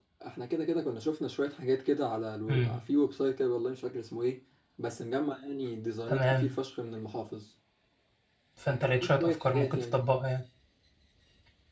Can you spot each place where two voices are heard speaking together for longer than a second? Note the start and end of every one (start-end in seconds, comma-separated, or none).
8.7-10.0